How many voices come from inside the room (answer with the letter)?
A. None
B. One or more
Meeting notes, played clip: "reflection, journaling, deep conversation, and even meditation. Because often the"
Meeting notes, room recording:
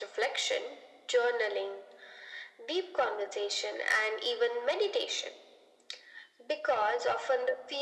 A